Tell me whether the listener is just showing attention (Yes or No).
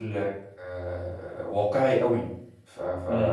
Yes